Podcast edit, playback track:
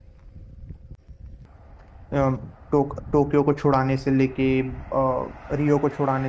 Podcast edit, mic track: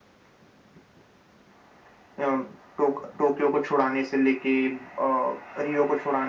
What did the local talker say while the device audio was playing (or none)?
none